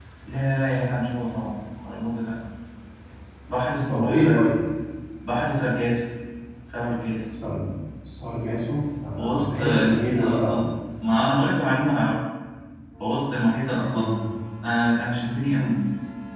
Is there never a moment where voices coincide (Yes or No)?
No